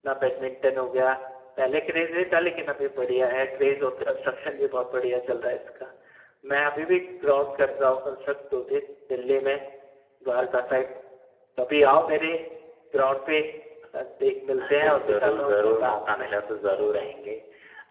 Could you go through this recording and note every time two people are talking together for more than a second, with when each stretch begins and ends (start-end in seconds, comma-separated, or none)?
14.7-16.3